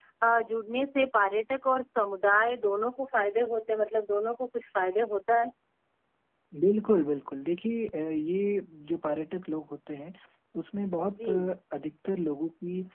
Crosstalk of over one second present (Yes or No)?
No